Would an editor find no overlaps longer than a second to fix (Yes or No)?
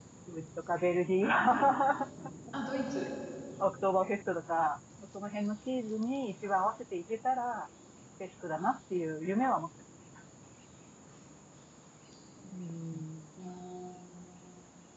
Yes